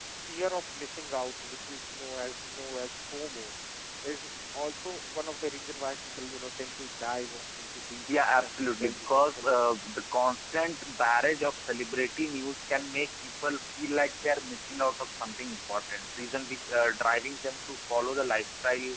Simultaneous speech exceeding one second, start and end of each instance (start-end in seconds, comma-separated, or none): 8.1-9.5